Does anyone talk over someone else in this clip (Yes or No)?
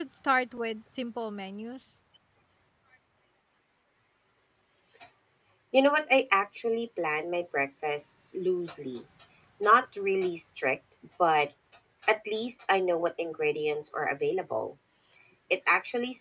No